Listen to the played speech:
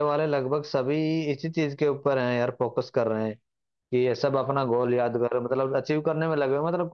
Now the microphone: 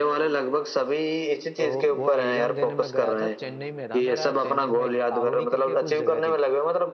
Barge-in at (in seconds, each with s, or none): 1.6 s